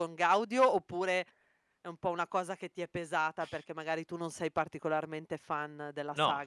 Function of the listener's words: taking over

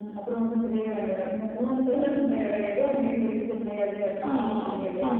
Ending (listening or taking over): taking over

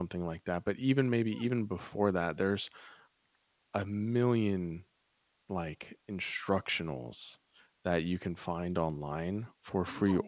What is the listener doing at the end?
listening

